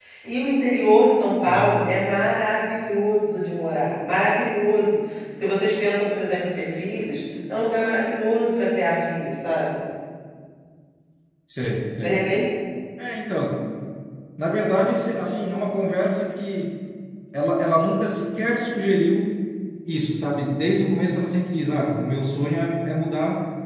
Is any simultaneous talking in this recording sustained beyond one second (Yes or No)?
No